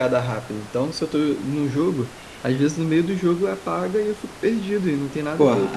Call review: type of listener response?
taking over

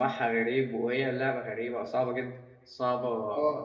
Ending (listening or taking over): listening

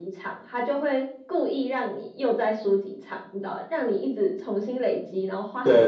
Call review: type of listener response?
taking over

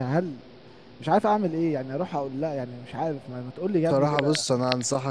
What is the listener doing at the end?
taking over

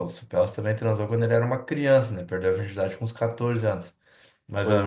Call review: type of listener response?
listening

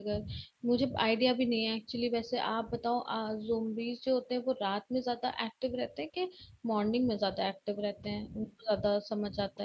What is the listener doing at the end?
taking over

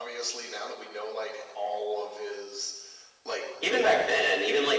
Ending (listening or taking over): taking over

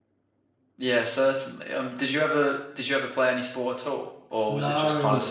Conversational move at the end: taking over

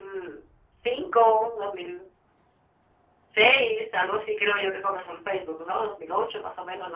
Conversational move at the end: taking over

